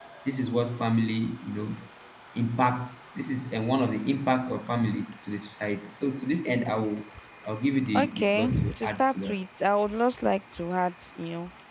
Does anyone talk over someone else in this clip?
Yes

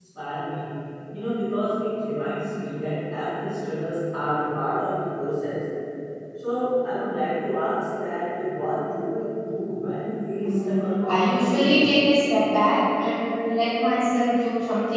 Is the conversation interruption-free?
No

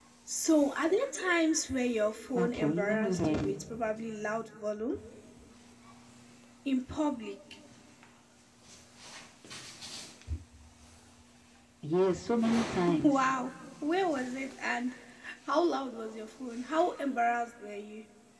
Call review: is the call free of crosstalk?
No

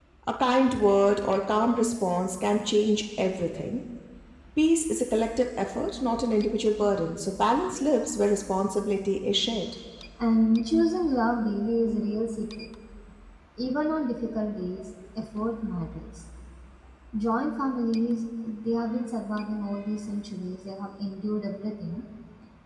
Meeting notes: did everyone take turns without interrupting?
Yes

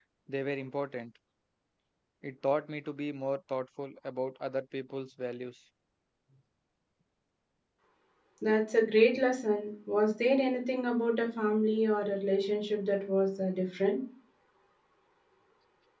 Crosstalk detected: No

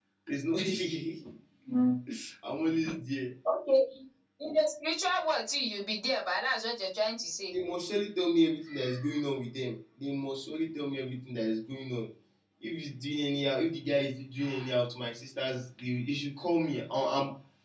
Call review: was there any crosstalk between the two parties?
No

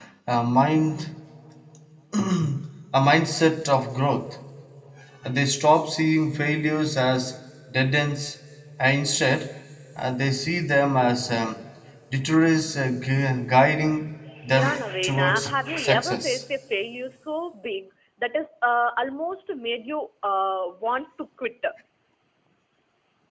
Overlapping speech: Yes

